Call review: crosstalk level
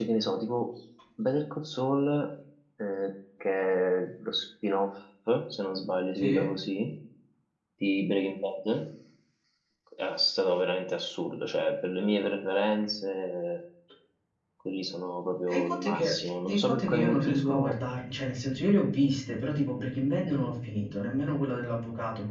present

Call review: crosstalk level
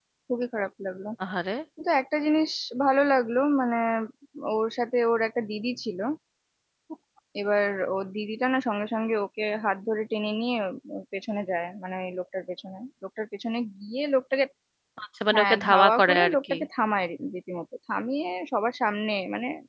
present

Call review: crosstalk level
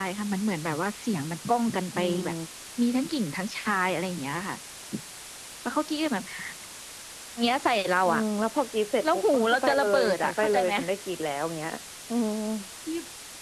present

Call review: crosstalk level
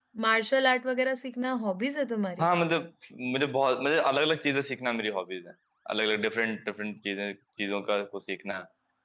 none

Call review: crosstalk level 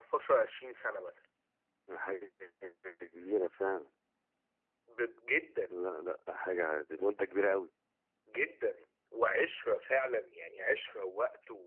none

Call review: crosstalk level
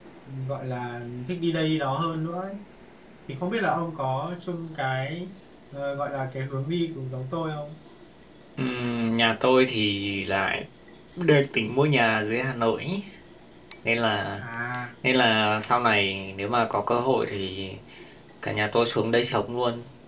none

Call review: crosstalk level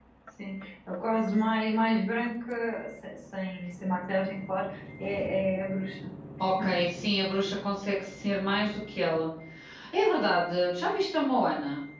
none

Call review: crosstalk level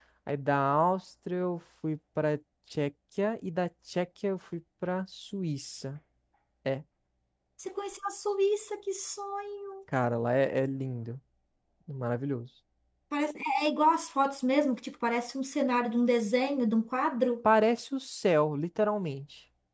none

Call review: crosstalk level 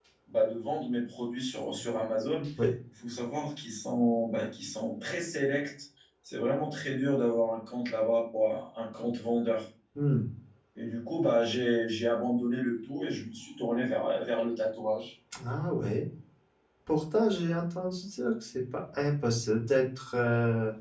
none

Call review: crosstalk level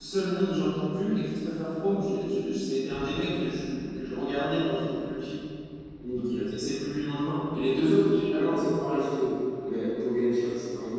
present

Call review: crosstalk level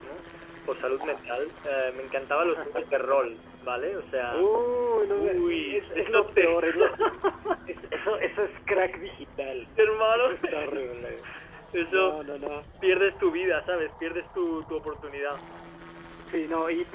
present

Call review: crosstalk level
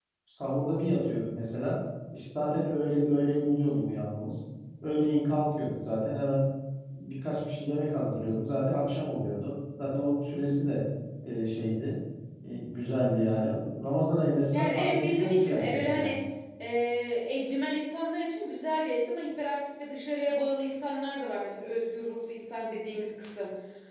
present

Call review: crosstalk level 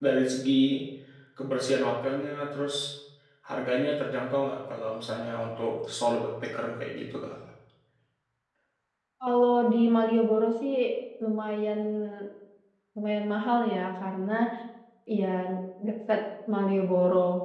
none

